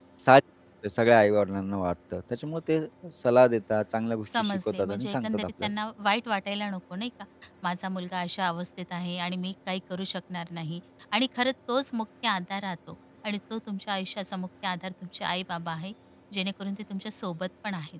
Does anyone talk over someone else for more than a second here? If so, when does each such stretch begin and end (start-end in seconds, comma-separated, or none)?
4.3-5.7